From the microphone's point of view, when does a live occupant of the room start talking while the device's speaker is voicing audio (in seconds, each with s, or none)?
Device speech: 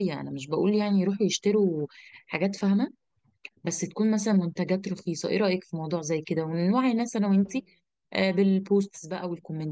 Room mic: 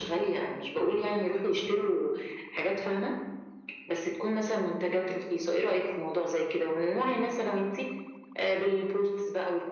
none